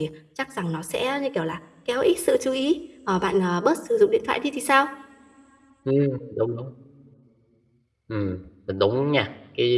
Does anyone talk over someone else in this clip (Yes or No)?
No